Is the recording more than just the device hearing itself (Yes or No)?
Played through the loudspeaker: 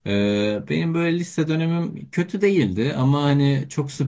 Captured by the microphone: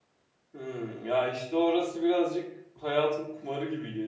Yes